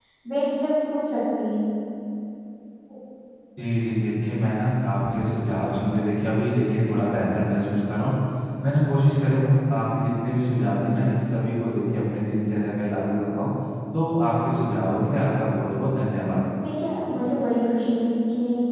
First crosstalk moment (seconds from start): none

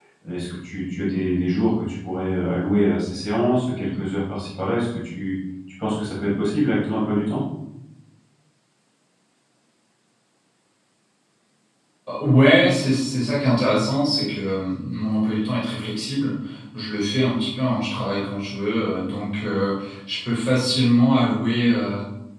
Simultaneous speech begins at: none

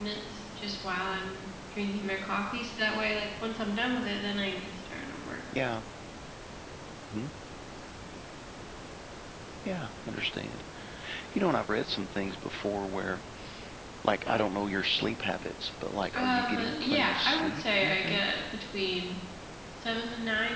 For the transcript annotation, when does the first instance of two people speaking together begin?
16.1 s

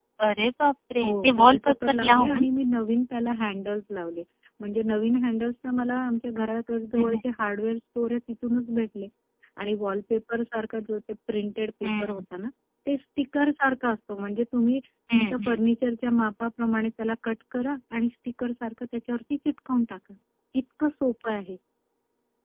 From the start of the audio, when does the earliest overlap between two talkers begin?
1.0 s

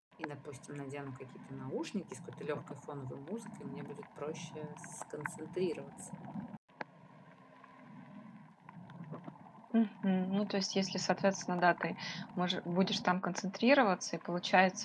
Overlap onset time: none

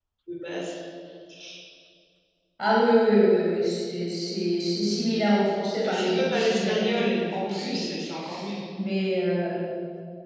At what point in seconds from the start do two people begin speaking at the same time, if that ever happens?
5.8 s

